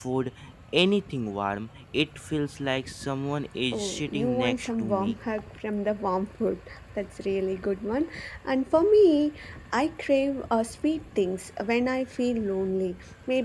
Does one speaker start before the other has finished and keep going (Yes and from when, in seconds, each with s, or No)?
Yes, from 3.7 s